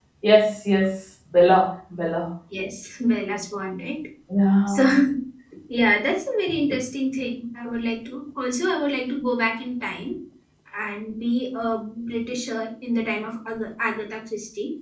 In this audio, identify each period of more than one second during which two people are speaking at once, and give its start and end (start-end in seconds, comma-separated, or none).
none